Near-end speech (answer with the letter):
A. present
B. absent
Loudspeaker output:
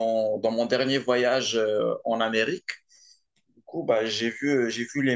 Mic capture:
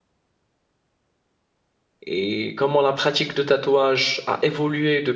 A